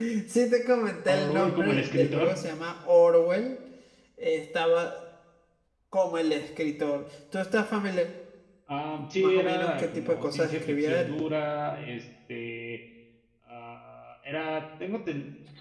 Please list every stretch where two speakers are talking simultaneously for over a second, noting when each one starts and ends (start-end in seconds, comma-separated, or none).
1.1-2.4, 9.1-11.2